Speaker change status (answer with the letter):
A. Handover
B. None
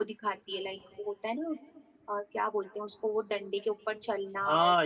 A